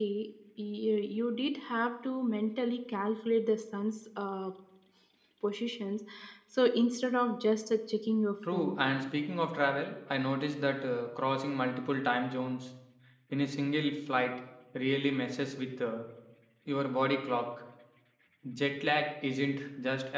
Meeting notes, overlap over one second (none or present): none